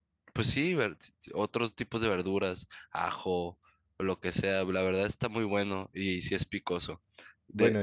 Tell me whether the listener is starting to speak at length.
No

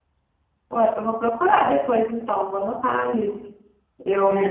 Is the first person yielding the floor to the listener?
Yes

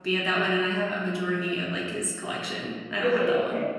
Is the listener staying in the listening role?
No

